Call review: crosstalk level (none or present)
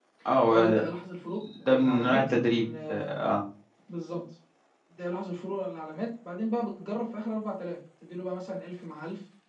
present